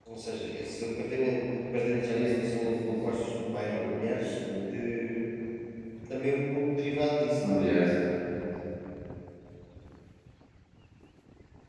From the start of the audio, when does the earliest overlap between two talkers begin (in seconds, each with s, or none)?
2.1 s